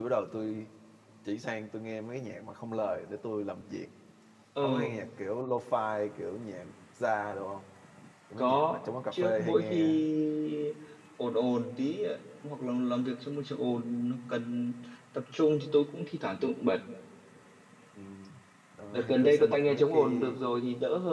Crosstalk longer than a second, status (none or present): present